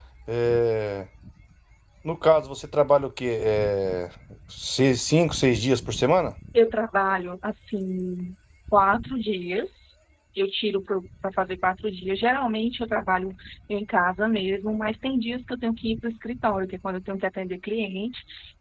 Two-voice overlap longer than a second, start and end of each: none

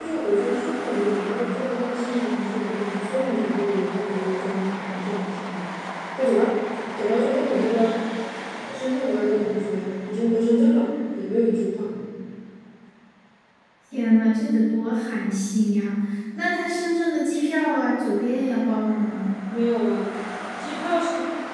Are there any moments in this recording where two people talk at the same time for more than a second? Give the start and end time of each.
none

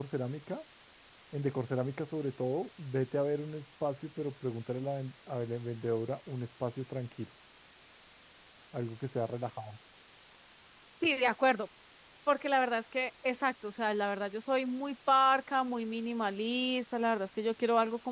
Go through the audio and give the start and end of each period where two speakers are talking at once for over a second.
none

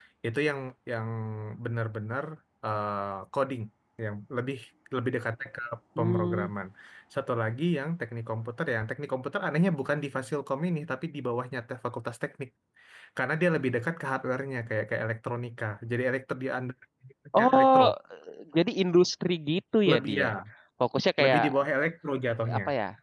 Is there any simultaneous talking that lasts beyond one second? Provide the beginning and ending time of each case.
none

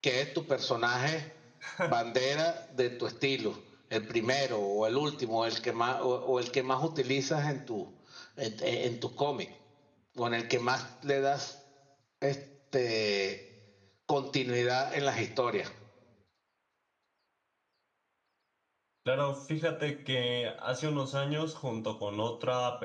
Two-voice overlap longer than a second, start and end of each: none

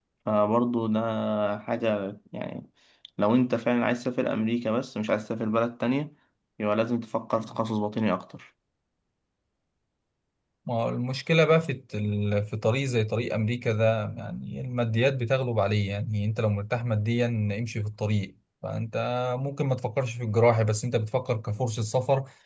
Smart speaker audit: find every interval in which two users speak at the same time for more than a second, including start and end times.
none

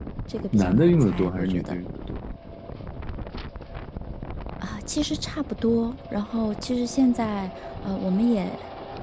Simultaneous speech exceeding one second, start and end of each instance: 0.5-1.7

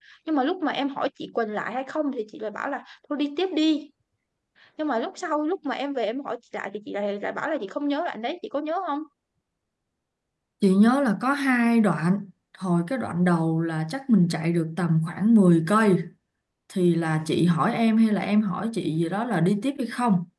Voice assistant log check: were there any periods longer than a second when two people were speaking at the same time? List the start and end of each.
none

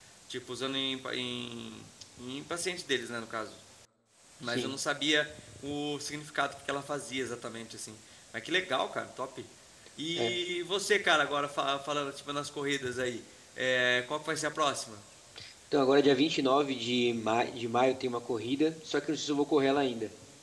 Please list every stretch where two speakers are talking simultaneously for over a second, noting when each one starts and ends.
none

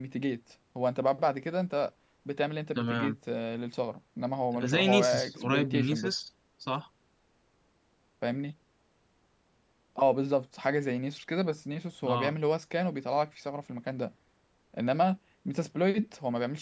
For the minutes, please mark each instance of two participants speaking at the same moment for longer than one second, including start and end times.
4.6-6.1

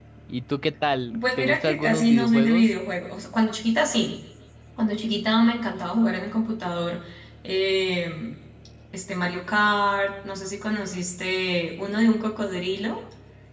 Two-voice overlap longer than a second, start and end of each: 1.4-2.6

